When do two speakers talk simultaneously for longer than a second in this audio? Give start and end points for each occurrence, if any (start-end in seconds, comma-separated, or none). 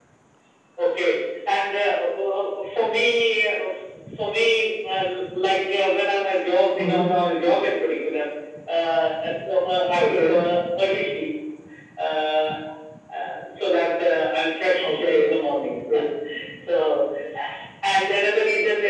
none